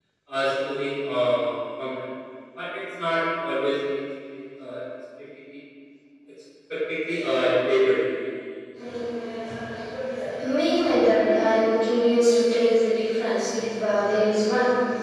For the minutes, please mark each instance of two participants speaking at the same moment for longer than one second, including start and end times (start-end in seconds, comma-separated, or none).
none